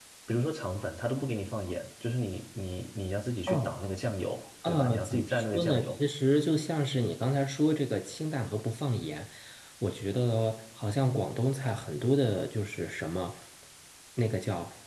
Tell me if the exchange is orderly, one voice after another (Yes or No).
No